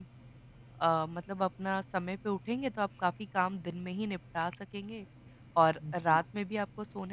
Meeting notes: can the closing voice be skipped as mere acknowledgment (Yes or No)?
Yes